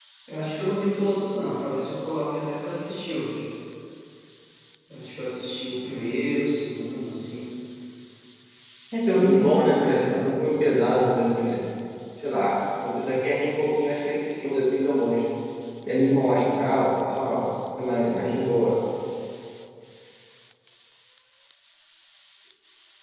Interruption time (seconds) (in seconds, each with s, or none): 9.1 s